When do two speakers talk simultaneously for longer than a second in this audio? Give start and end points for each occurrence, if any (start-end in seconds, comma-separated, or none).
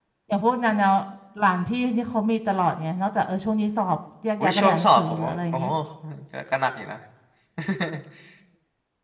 4.4-5.7